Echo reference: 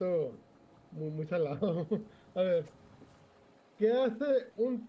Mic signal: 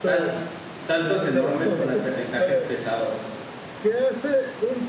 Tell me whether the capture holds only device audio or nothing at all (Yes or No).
No